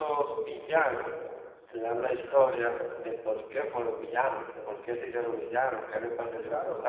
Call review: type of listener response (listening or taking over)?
taking over